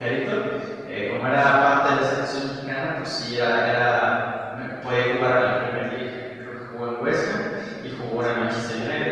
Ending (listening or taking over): taking over